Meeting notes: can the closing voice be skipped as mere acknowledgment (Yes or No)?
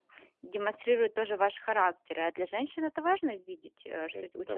No